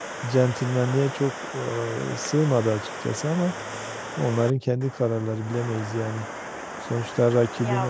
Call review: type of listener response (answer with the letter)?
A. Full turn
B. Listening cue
B